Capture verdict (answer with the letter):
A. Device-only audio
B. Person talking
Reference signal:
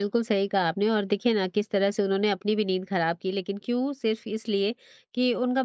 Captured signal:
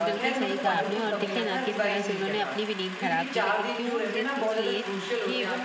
B